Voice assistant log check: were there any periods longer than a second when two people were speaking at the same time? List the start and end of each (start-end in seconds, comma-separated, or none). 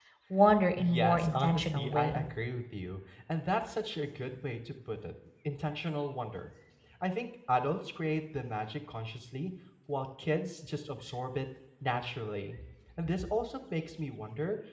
0.8-2.3